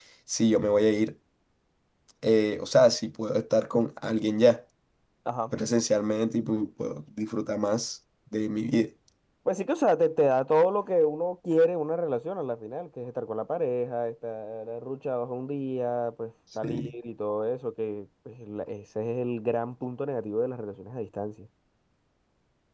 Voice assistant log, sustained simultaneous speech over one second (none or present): none